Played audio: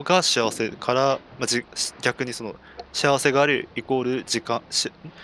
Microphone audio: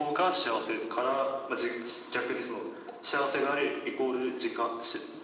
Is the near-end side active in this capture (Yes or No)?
No